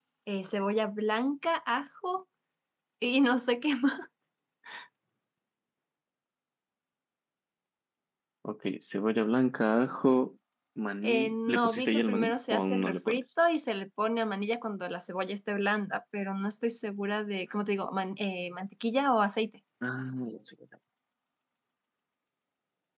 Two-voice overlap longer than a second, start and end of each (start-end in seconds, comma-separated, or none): 11.0-13.2